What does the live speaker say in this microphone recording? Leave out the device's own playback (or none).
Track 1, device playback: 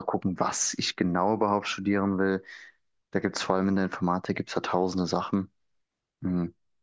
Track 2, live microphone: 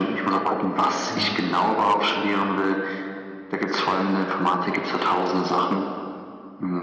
Mhm.